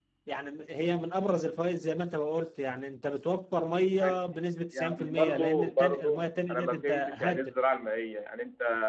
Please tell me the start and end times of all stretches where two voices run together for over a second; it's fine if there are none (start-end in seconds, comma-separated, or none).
4.7-7.5